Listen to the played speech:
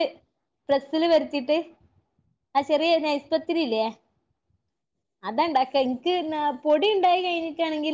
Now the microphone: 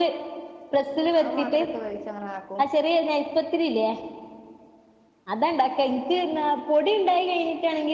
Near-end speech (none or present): present